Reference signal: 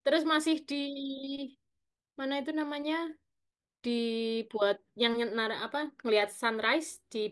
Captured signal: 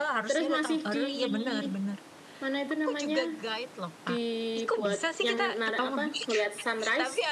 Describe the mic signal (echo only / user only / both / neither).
both